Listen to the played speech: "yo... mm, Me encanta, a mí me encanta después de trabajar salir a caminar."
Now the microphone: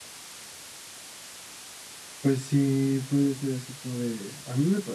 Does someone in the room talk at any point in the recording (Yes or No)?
Yes